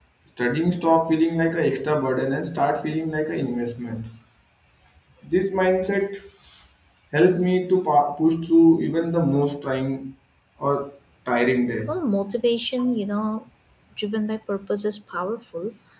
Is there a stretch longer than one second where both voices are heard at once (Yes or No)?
No